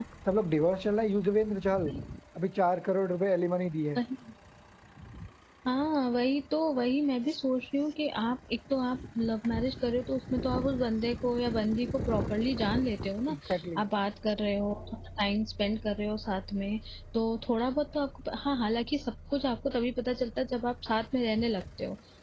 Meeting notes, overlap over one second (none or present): none